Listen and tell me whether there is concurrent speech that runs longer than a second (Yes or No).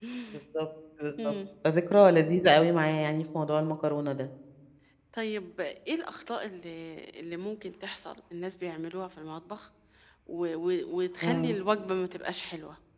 No